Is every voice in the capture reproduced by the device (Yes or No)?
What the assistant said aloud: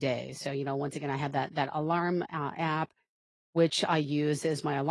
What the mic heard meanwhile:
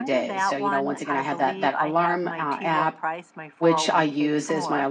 No